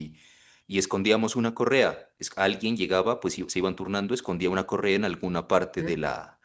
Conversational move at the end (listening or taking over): listening